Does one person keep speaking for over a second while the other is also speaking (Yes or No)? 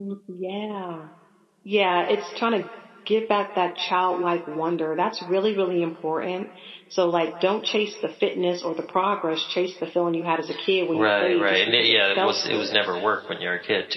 Yes